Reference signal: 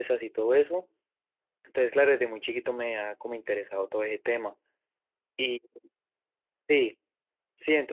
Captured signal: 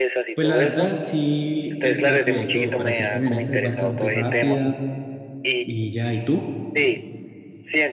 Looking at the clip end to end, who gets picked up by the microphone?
both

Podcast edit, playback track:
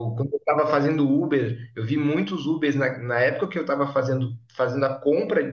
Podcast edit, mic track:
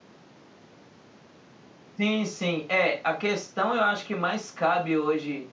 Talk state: user only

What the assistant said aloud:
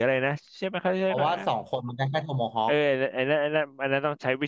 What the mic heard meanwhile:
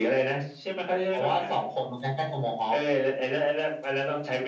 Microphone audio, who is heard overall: echo only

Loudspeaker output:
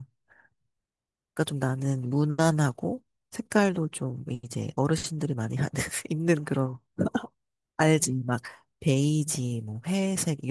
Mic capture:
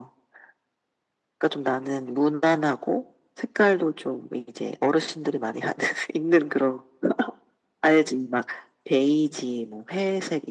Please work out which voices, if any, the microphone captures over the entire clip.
echo only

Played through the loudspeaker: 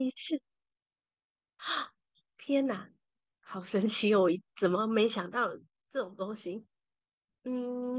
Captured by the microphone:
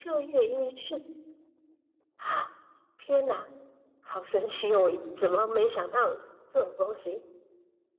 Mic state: echo only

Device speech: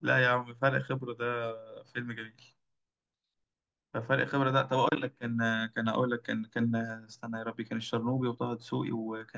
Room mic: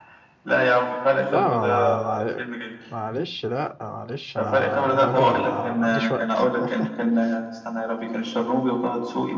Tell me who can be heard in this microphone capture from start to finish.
both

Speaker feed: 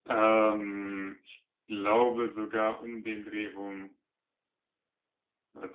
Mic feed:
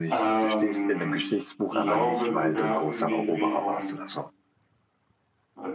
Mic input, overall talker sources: both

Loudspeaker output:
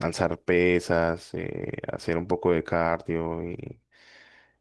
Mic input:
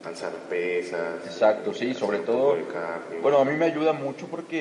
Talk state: both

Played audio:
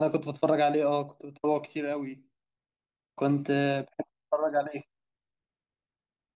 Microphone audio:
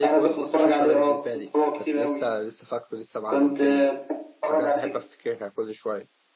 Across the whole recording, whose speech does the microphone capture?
both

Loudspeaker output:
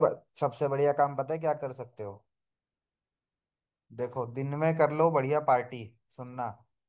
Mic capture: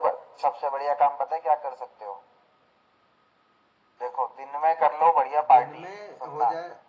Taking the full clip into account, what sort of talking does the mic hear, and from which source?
both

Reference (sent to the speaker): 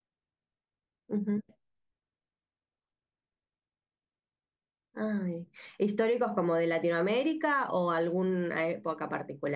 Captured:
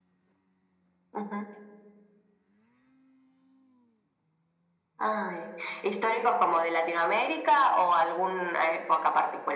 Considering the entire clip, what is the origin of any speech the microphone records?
echo only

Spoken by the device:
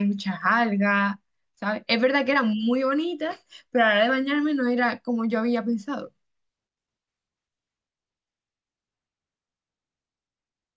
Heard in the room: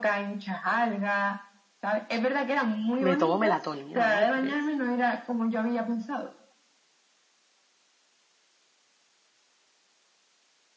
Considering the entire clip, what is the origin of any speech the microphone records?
both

